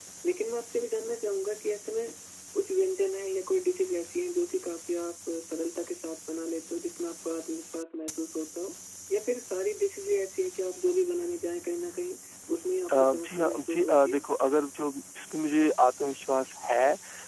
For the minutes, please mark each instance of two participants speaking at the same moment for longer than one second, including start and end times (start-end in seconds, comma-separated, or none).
13.0-14.2